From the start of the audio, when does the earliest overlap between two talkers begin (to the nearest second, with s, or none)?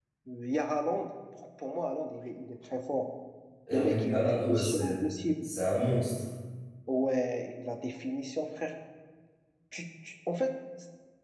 4 s